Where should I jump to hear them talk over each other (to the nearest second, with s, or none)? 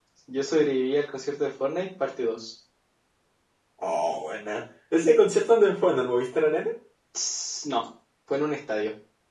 none